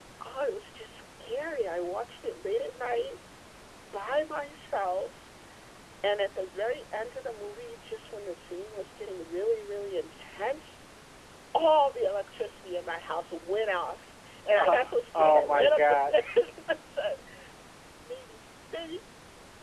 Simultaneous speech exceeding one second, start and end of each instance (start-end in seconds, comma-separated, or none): 14.6-16.2